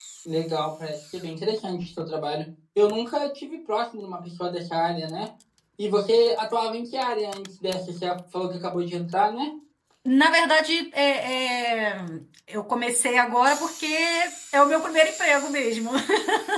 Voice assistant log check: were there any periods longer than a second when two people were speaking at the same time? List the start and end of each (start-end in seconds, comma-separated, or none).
none